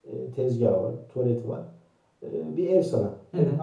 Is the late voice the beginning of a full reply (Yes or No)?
No